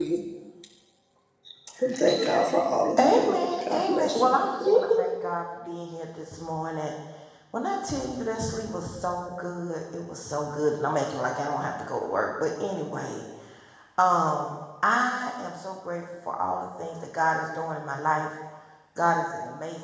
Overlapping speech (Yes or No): Yes